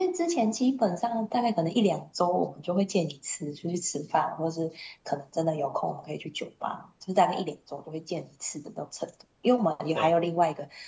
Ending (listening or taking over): listening